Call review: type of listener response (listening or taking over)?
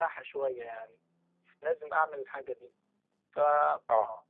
listening